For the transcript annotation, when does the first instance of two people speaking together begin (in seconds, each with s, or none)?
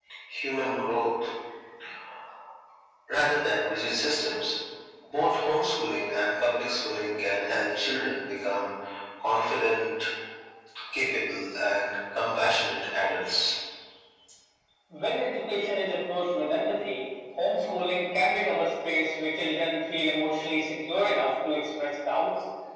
none